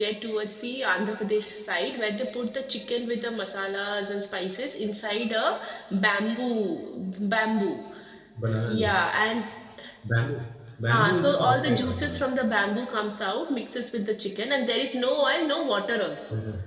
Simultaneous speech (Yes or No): Yes